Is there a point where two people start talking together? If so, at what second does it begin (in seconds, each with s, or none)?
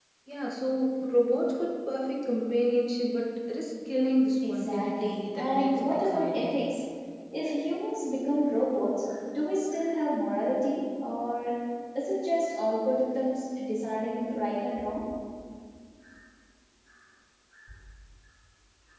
4.4 s